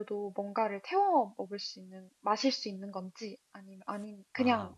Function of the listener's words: taking over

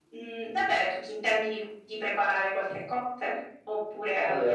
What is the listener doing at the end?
taking over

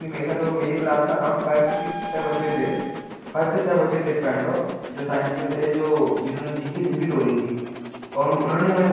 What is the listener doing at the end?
listening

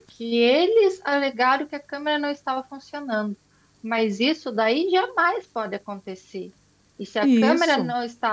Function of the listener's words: listening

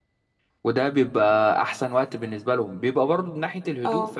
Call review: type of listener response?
listening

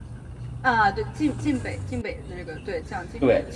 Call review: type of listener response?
listening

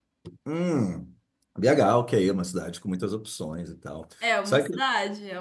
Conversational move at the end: taking over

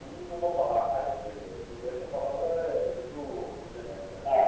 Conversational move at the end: listening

